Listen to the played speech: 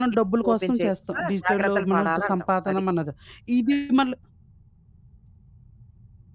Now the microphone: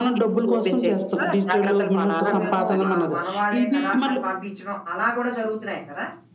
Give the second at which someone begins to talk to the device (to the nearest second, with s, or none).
2 s